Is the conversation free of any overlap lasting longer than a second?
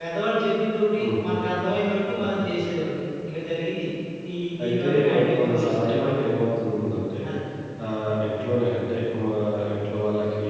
No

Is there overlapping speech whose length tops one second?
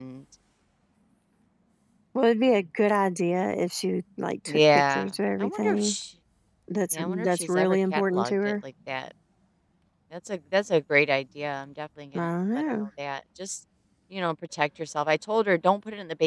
Yes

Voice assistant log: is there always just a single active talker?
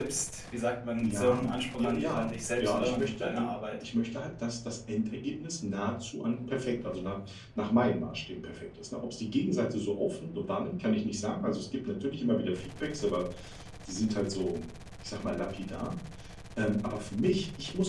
No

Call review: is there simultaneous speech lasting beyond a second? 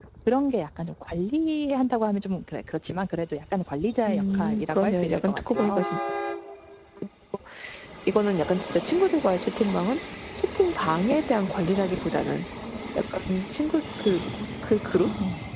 Yes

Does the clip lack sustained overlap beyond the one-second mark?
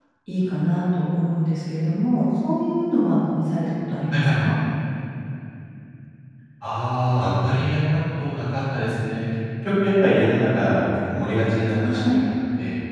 Yes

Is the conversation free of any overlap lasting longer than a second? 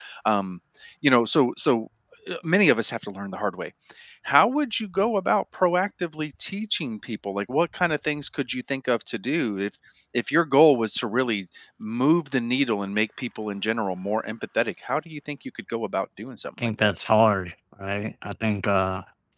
Yes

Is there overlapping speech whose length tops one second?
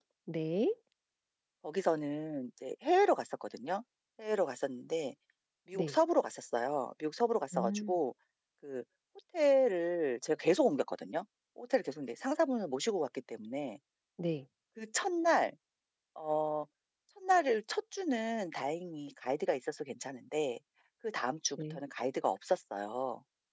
No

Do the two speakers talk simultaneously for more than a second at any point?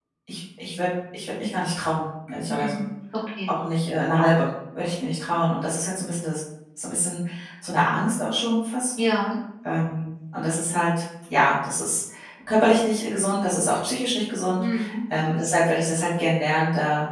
No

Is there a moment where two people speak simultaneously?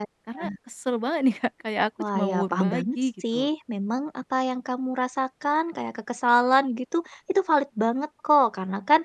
Yes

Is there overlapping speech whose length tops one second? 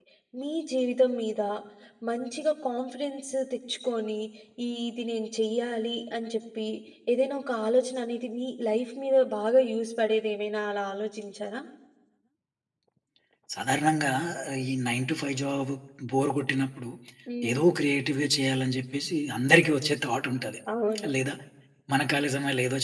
No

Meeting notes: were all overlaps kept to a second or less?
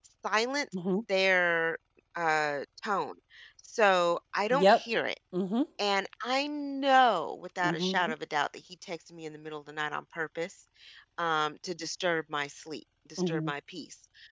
Yes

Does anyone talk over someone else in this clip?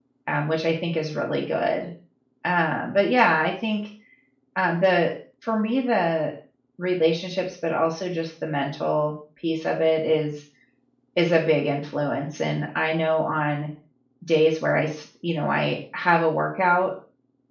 No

